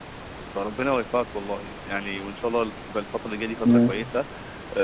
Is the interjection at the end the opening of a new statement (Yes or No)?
No